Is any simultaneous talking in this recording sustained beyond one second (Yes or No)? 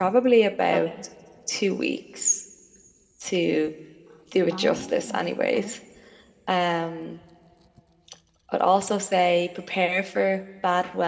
Yes